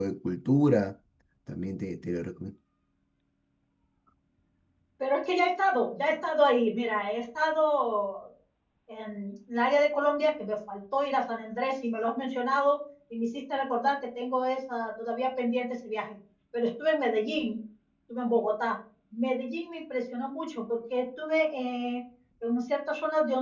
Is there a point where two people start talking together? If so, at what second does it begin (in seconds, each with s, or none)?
none